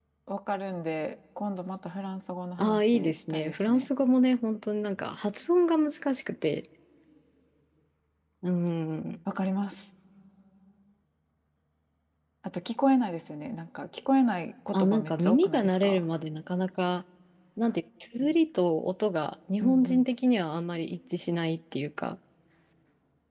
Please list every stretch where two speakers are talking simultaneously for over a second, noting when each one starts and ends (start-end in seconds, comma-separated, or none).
2.6-3.9, 14.7-16.0